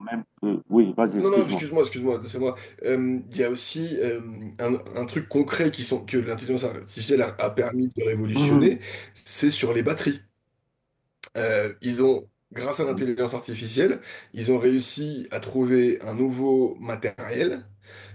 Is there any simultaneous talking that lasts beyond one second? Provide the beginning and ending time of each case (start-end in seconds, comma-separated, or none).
none